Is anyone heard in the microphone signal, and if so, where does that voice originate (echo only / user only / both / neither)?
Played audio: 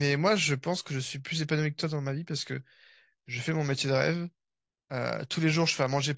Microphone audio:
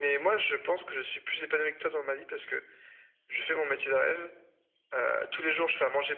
echo only